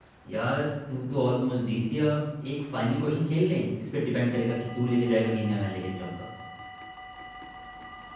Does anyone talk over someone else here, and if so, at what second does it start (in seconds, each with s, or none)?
none